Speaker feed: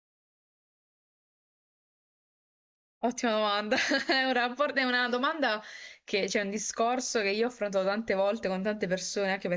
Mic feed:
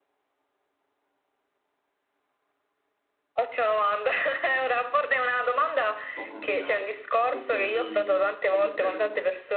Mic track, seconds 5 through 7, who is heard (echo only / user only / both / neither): both